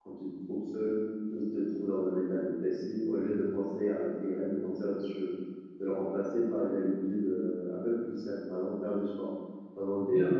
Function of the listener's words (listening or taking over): taking over